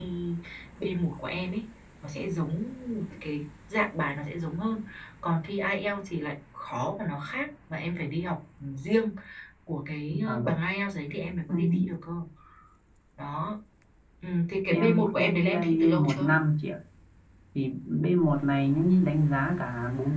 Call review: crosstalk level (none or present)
present